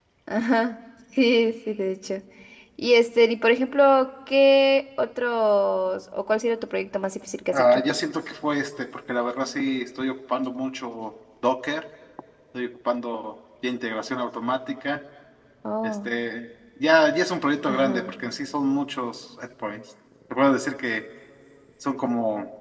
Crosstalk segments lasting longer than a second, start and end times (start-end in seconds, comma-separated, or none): none